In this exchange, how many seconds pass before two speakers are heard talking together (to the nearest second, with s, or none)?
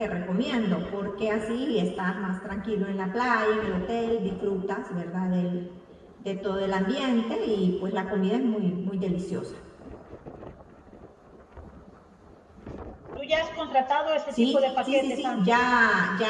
14 s